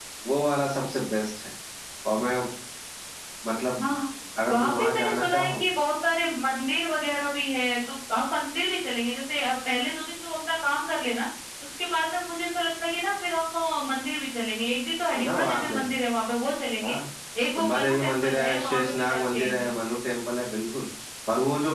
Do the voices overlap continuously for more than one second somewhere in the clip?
Yes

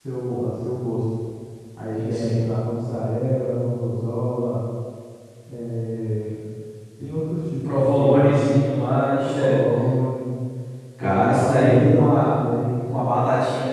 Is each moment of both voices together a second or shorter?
No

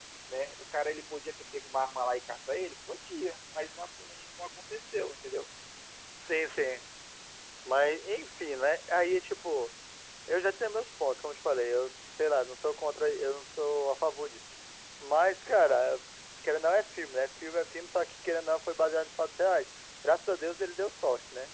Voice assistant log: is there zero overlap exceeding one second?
Yes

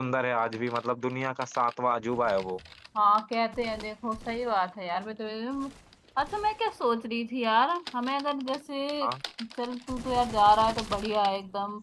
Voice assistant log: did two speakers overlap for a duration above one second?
No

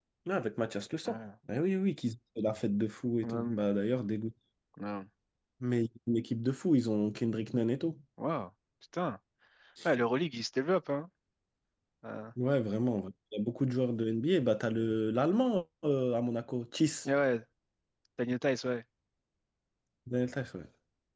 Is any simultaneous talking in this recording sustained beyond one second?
No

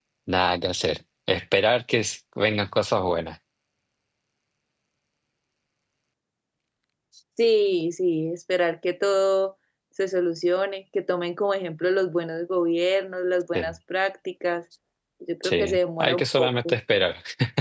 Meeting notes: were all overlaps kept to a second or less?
No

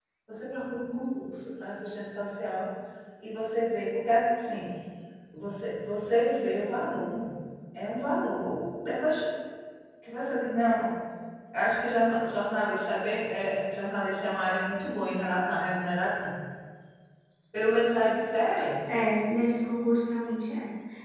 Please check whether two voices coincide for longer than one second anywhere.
No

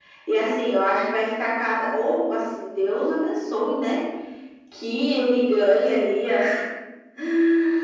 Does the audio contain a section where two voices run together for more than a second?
No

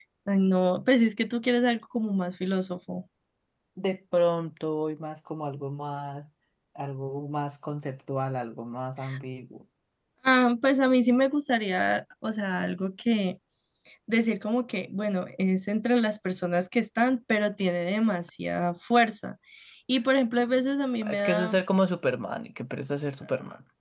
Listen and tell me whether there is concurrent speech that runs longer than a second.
No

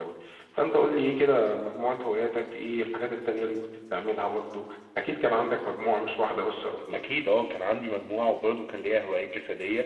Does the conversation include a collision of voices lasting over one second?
No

